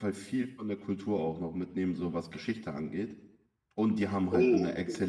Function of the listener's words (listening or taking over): listening